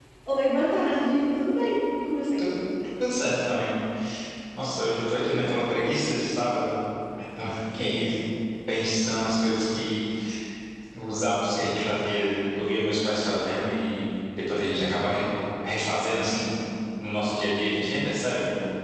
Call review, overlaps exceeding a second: none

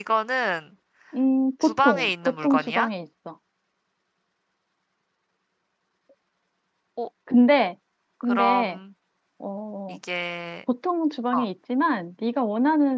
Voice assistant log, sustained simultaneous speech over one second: present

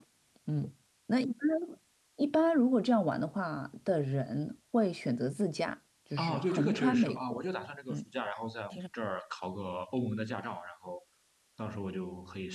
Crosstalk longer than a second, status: present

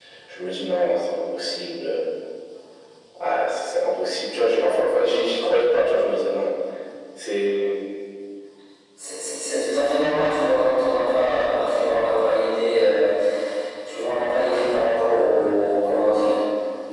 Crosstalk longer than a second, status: none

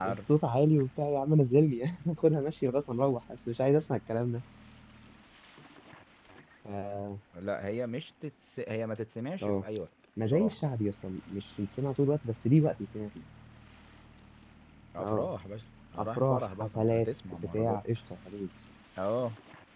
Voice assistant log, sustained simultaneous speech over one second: present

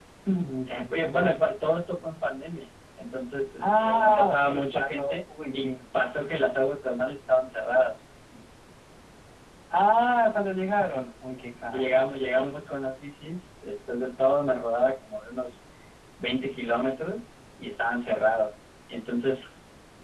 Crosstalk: present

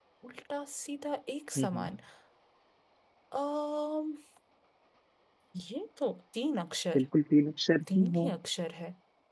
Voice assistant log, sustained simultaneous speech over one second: none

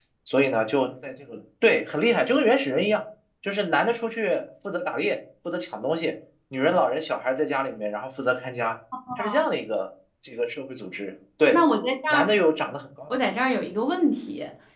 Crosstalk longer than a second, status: none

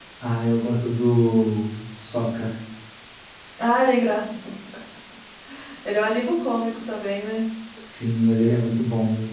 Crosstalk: none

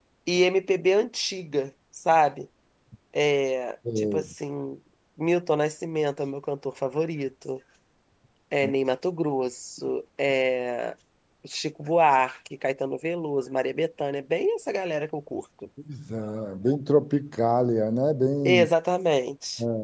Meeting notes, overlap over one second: none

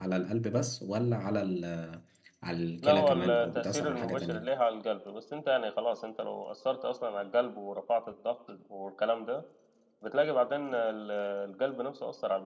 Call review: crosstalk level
present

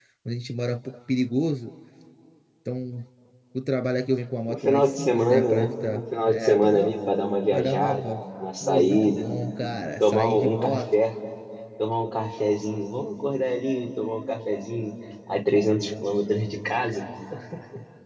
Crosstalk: present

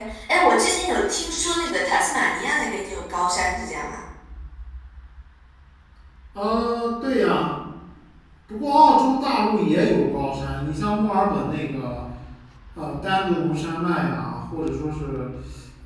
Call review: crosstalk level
none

